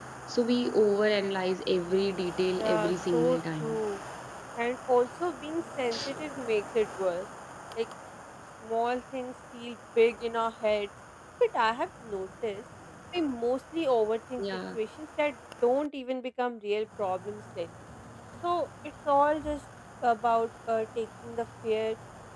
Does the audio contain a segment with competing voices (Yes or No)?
Yes